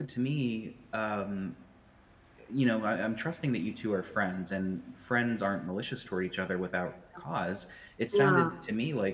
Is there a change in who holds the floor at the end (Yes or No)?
No